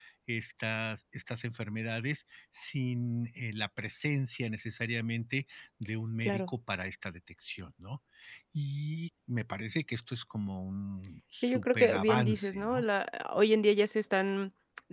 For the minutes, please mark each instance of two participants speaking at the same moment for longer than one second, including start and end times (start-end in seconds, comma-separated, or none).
11.4-12.8